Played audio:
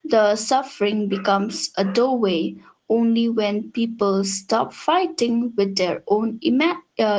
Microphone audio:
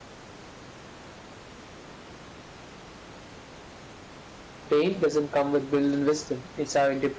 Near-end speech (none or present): present